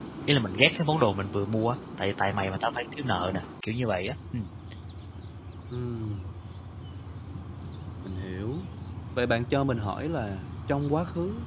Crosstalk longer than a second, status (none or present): none